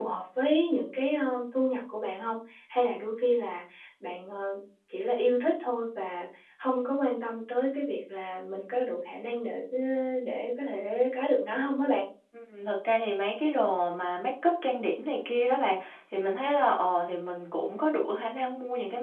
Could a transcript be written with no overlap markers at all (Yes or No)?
Yes